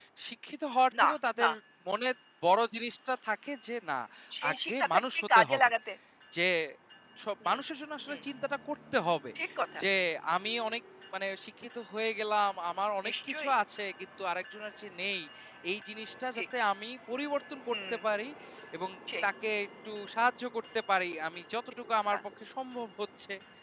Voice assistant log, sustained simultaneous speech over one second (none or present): present